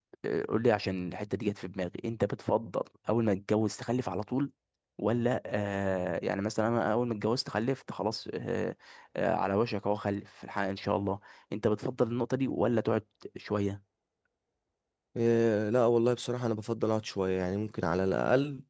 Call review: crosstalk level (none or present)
none